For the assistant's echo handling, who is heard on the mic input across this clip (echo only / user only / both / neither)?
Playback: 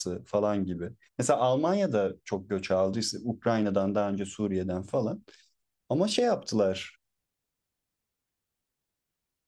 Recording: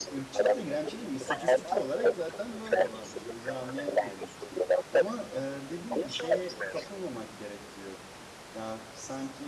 both